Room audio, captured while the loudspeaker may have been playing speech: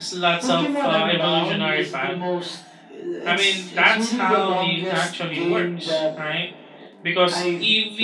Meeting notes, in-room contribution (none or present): present